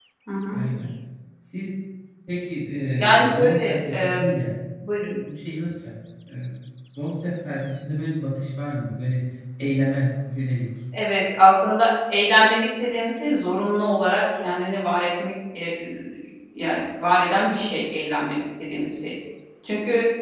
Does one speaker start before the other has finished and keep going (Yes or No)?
Yes